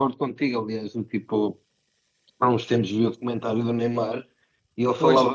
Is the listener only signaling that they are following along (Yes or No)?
Yes